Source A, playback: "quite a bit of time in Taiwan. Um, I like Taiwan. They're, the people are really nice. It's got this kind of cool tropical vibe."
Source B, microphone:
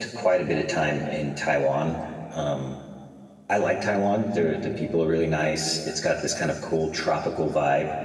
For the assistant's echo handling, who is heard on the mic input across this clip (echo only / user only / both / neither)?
echo only